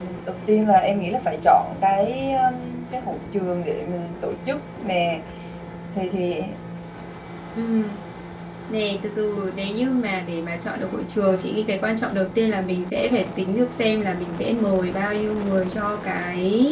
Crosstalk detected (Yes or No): No